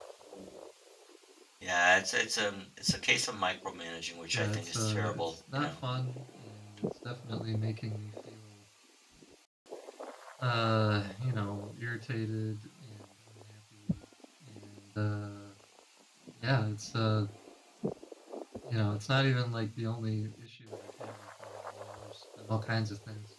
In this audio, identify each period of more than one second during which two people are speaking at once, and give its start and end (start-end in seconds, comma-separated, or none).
4.3-5.7